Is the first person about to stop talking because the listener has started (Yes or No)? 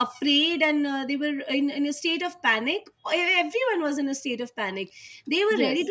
No